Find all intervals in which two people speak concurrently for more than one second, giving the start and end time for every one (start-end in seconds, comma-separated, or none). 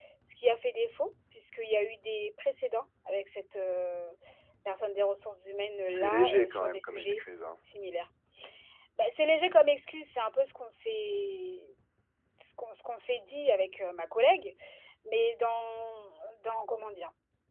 5.9-7.2